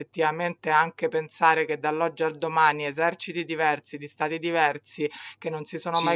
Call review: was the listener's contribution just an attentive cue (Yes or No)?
Yes